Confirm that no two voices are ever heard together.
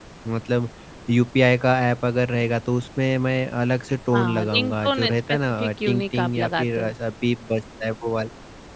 No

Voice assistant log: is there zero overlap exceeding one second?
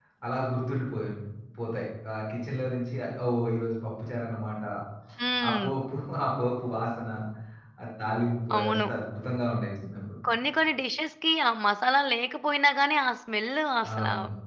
Yes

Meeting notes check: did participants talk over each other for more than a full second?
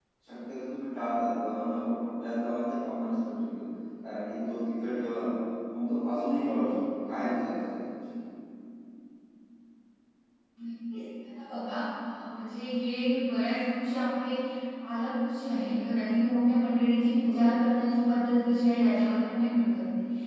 No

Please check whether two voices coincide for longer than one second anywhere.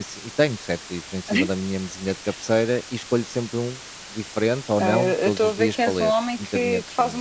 Yes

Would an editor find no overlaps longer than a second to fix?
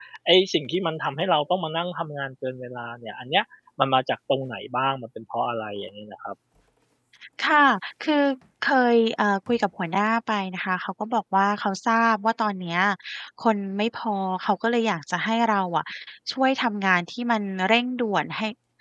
Yes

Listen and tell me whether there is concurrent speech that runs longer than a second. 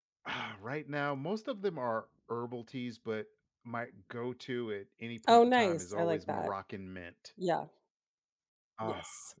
Yes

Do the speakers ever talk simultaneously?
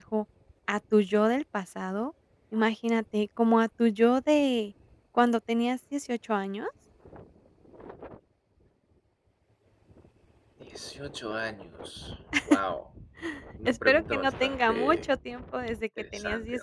Yes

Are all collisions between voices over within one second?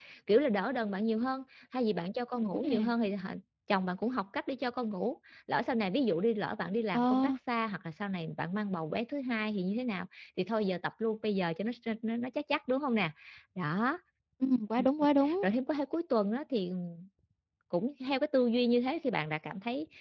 Yes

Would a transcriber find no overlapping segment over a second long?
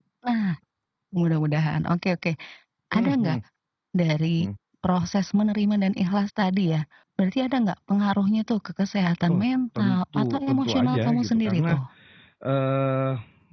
No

